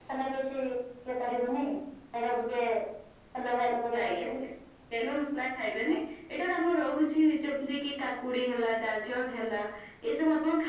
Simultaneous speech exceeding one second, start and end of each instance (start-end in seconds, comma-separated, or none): none